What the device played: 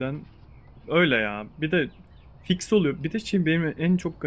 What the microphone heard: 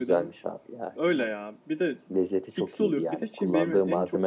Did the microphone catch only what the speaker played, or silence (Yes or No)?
No